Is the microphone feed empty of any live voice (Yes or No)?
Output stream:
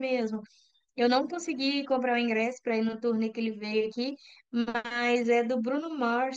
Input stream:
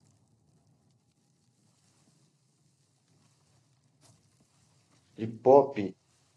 No